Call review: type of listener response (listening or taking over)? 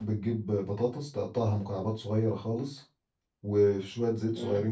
listening